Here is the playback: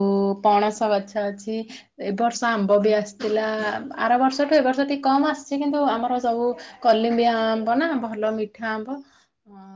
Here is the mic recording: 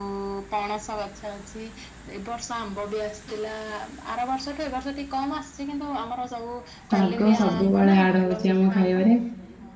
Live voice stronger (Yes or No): Yes